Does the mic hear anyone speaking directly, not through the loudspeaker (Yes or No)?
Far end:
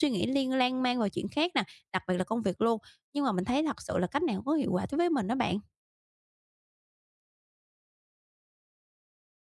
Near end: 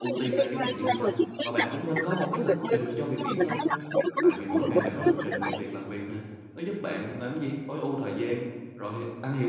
Yes